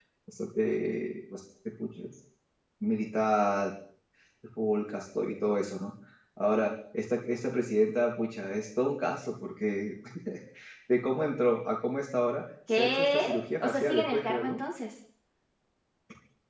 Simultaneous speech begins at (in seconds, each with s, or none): 12.7 s